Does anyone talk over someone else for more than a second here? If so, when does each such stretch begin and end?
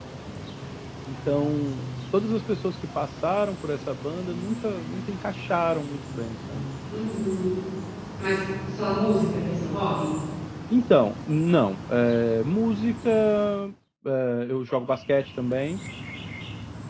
none

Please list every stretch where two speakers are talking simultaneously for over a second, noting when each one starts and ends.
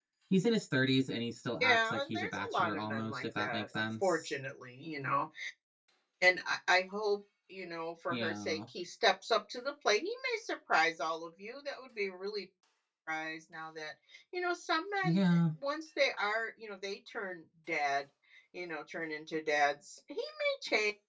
1.6-4.3

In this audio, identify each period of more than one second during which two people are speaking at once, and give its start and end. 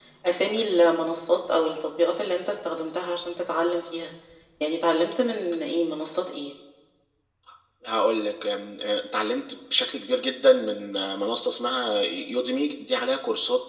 none

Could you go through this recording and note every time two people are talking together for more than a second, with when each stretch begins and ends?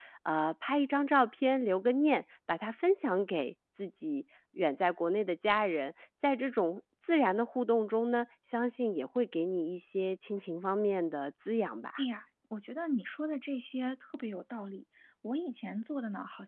none

